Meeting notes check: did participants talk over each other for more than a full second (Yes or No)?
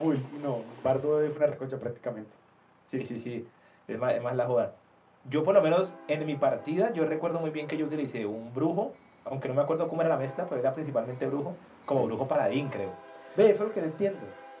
No